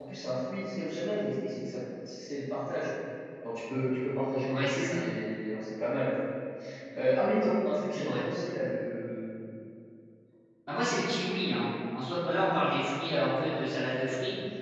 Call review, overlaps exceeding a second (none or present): none